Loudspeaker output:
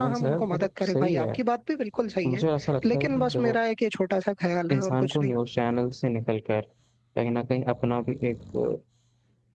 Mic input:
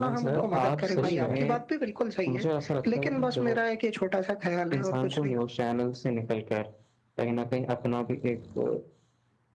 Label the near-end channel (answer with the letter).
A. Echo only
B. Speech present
B